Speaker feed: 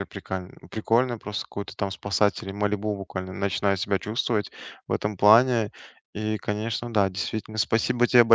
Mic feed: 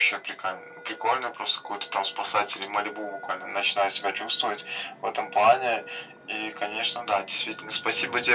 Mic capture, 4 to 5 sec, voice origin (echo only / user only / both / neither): echo only